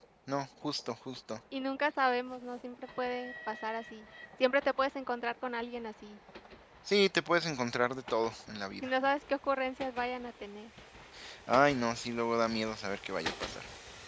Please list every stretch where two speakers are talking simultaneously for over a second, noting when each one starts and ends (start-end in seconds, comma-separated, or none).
none